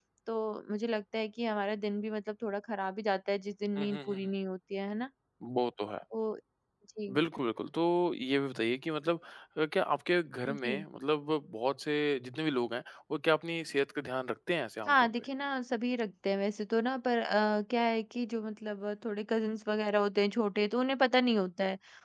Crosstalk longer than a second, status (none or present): none